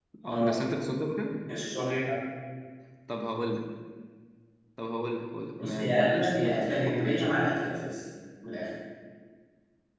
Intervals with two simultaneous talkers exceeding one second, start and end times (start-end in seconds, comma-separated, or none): 5.6-7.4